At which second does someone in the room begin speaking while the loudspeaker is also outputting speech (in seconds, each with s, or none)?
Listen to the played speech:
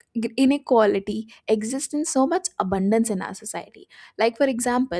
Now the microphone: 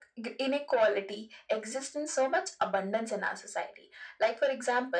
none